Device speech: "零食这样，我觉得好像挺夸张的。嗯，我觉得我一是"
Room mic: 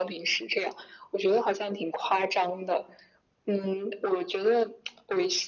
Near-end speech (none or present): none